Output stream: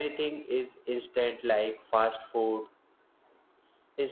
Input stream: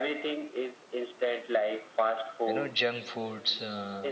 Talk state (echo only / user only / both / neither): both